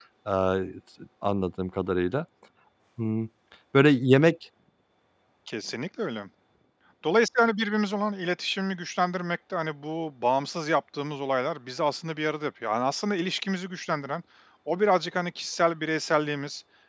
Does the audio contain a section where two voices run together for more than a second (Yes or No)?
No